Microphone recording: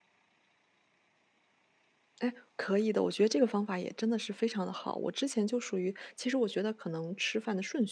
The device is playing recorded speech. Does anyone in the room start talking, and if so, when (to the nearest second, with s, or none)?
2 s